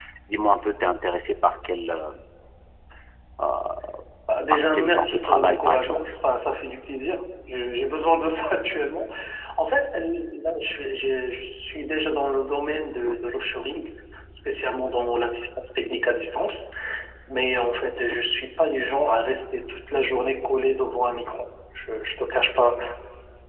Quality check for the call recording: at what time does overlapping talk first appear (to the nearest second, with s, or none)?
5 s